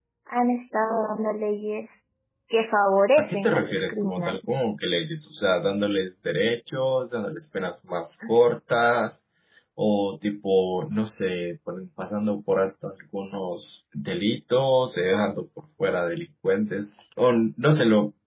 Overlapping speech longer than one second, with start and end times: 3.2-4.4

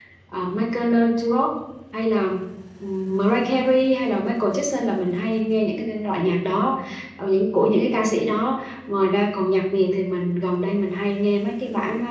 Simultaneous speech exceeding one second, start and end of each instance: none

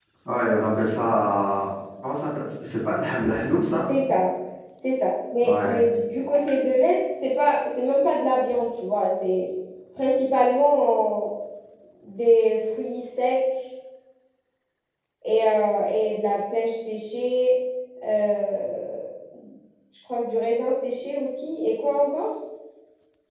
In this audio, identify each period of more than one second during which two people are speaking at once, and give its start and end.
none

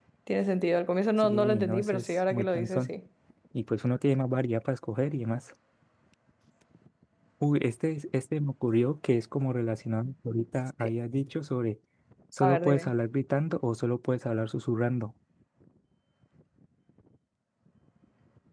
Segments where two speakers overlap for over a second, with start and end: 1.2-2.9

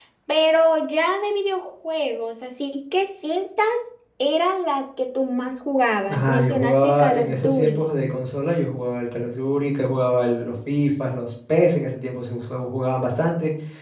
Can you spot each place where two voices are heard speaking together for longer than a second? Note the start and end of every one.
6.1-7.9

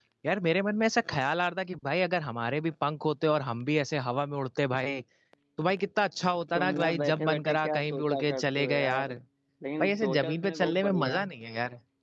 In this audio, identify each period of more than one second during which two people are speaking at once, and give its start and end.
6.5-9.1, 9.8-11.2

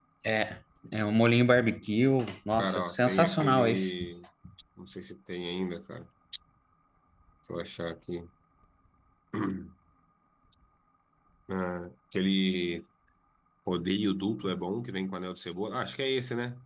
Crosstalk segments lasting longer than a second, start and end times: 2.6-3.9

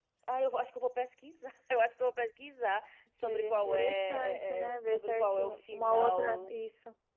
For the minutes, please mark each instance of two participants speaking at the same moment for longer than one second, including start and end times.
3.2-6.5

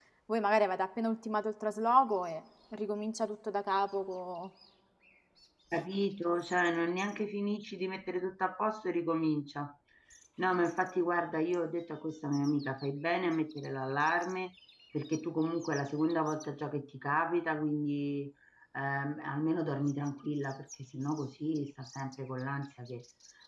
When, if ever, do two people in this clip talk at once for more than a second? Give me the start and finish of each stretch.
none

